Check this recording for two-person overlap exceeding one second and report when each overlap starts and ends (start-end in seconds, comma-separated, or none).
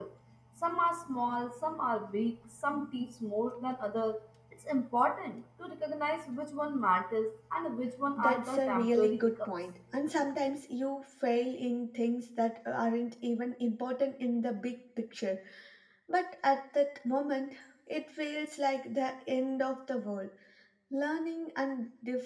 8.2-9.5